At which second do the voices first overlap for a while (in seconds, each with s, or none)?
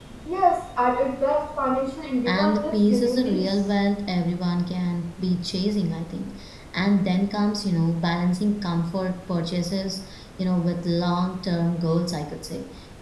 2.2 s